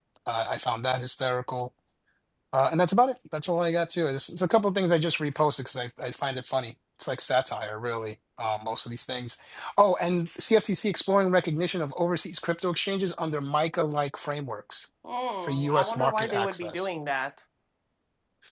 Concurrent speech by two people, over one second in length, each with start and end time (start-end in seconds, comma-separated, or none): 15.4-16.9